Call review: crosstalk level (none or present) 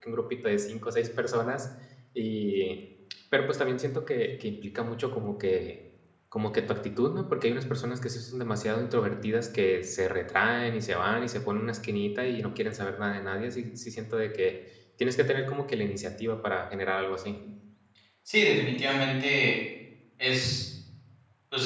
none